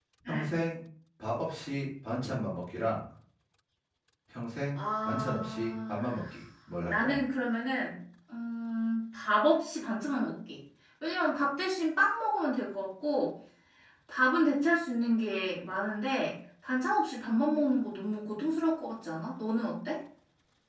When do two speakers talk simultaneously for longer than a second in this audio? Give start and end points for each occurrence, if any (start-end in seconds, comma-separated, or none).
4.8-6.0